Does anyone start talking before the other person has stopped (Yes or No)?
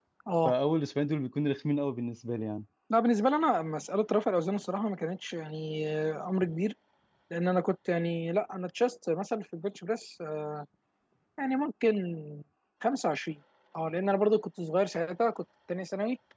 No